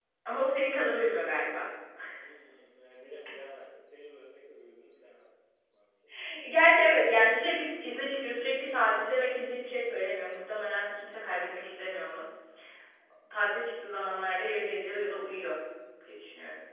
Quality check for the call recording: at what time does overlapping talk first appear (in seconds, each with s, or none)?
none